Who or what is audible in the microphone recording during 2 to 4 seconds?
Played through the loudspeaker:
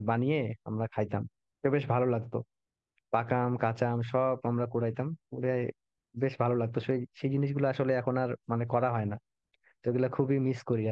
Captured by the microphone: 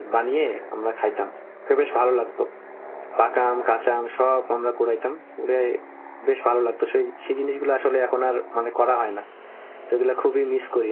echo only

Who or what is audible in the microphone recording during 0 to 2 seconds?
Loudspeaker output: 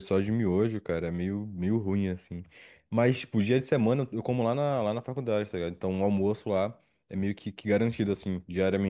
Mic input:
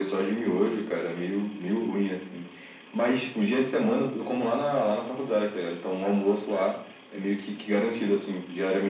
echo only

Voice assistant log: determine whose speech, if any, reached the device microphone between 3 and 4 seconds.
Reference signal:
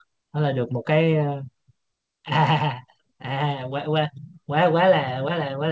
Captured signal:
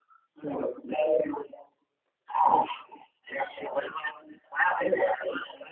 echo only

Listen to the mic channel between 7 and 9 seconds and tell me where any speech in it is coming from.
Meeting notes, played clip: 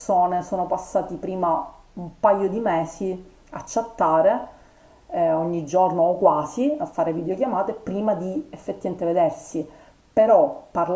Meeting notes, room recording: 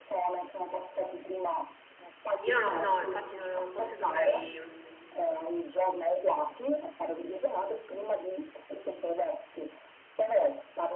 echo only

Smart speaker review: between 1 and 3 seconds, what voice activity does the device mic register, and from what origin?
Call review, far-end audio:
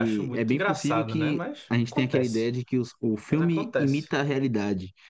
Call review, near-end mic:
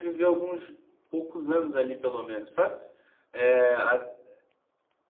user only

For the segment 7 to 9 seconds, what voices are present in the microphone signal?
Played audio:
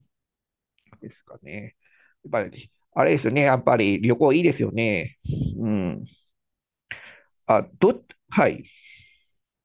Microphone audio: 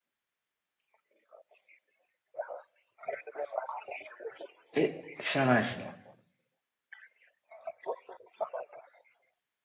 echo only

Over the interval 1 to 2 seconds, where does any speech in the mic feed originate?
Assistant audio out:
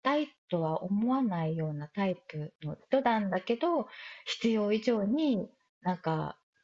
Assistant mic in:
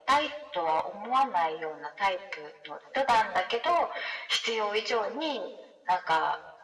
echo only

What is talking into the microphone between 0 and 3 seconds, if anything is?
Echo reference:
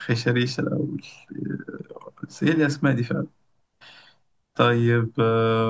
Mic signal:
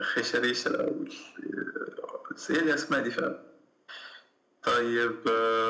echo only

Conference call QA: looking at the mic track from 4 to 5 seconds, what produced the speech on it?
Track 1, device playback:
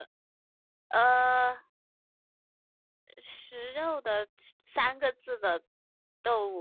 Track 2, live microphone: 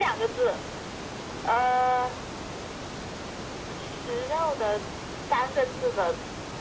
echo only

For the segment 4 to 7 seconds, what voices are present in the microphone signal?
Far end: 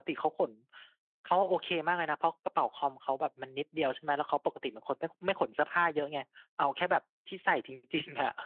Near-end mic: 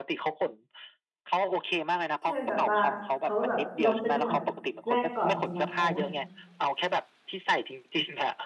both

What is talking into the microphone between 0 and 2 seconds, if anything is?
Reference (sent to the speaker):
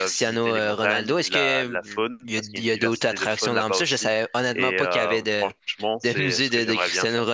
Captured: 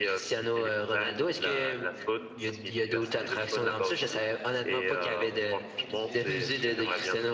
echo only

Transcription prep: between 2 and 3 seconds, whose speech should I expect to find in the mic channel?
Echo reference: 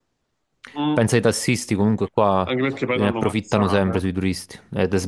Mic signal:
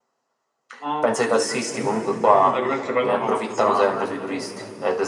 both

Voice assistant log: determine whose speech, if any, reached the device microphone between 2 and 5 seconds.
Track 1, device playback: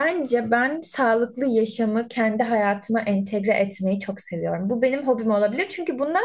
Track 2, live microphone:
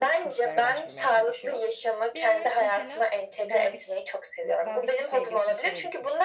both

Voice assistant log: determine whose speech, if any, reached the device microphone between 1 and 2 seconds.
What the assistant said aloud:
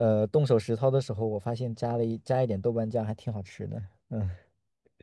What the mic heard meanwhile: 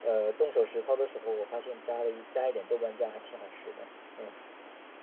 echo only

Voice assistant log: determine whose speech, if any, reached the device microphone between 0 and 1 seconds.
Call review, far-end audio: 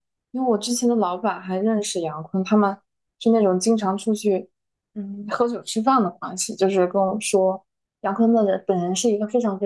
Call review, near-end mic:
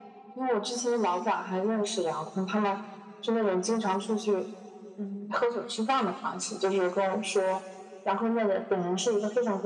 echo only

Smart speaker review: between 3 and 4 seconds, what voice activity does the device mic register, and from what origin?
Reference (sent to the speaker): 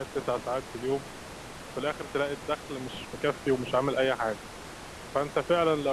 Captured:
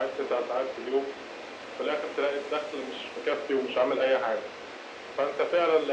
echo only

